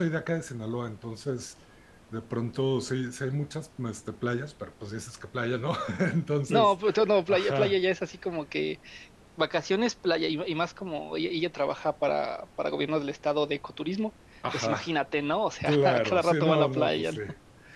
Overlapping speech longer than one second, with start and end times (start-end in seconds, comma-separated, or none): 15.7-17.2